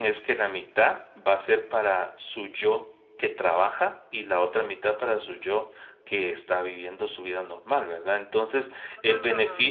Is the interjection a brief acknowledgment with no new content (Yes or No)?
Yes